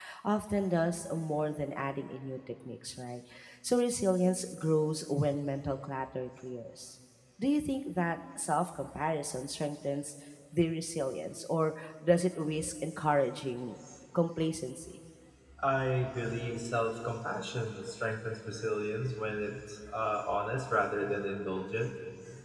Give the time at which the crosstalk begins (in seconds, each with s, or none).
none